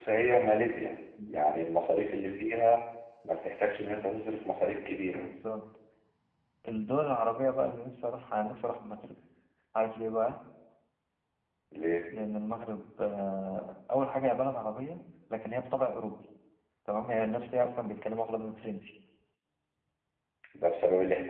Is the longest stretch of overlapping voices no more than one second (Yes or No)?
Yes